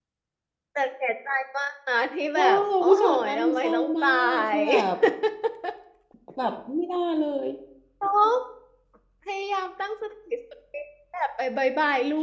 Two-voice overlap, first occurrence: 2.4 s

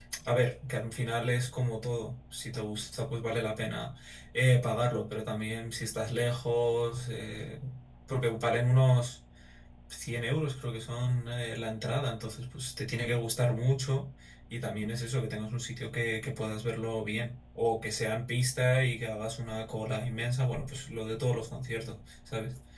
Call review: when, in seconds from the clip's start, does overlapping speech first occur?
none

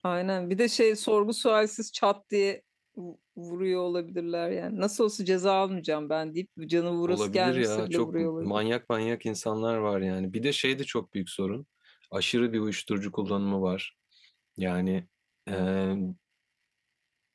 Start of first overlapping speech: 7.1 s

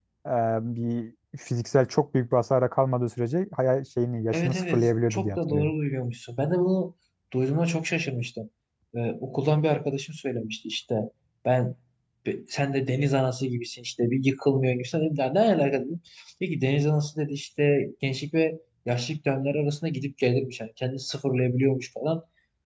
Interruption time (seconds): 4.3 s

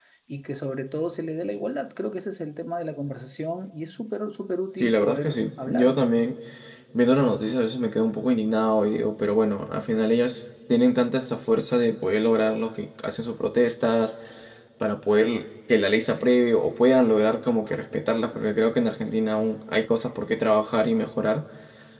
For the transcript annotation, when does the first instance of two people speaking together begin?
4.8 s

